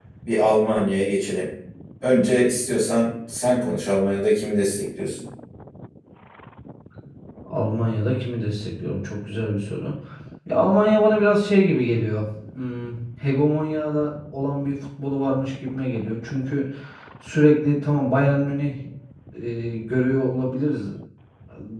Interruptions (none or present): none